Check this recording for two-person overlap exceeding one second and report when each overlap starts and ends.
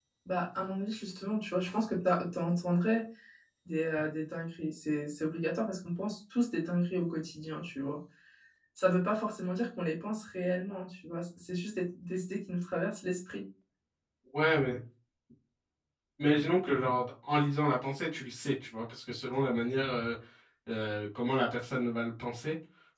none

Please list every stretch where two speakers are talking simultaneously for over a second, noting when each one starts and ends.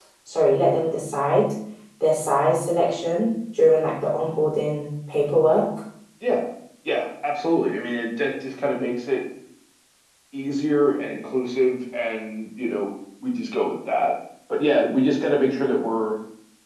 none

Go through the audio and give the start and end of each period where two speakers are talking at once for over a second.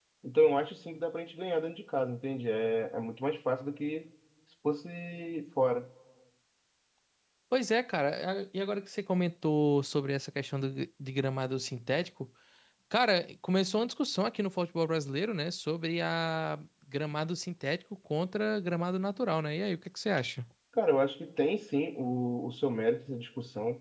none

